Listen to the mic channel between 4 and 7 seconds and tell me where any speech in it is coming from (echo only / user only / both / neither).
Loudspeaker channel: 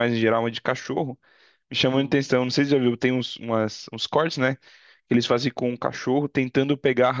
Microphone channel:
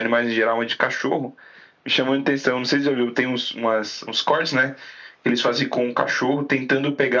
echo only